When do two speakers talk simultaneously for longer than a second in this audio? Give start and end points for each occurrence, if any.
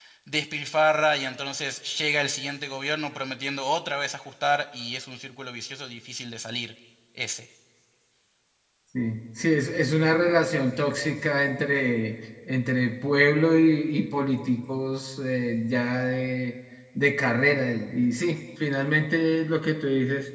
none

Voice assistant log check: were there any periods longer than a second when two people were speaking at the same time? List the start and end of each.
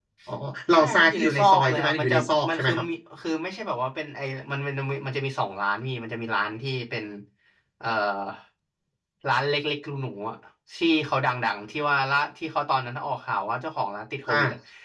0.7-2.1

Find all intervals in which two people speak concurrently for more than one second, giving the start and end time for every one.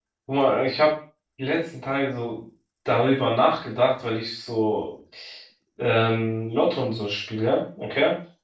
none

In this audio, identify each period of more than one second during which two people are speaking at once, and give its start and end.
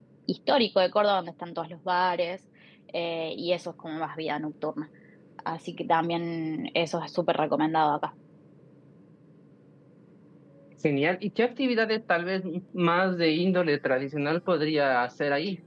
none

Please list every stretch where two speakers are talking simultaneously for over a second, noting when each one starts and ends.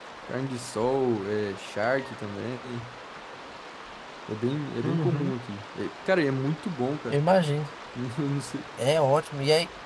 none

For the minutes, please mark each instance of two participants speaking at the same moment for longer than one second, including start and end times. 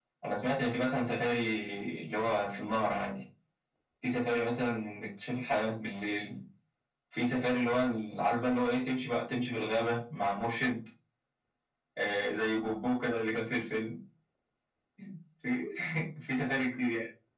none

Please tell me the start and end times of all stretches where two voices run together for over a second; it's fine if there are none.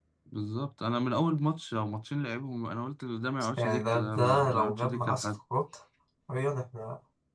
3.6-5.3

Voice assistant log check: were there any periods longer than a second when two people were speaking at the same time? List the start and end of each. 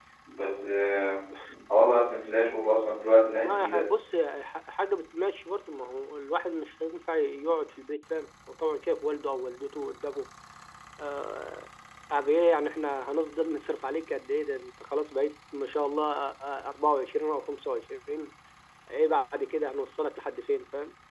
none

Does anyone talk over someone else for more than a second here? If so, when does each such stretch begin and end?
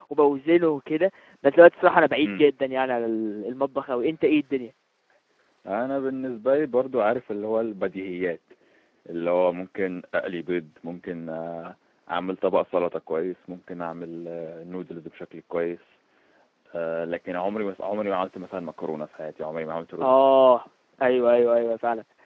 none

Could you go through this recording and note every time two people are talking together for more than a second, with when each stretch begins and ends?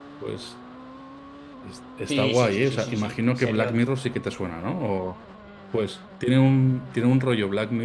2.1-3.8

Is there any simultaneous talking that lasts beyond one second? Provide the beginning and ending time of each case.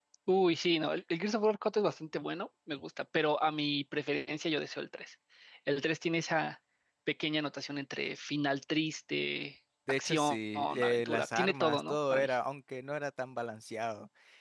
9.9-12.3

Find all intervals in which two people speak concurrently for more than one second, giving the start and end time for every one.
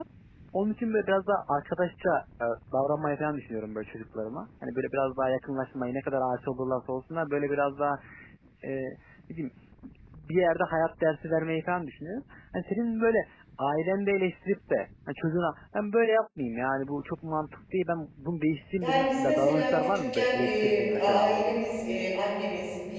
18.8-21.6

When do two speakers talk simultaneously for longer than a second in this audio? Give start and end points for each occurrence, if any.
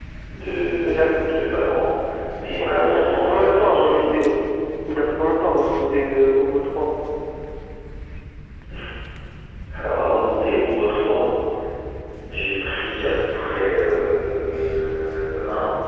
2.6-4.1

